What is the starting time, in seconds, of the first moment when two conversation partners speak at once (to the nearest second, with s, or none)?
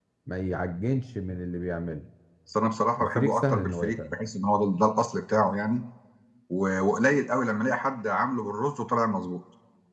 3 s